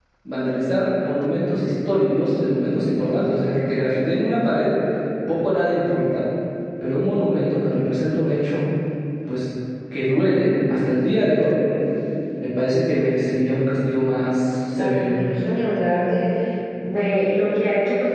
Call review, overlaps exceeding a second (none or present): none